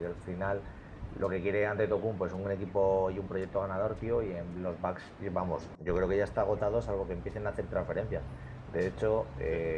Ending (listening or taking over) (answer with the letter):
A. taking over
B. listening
B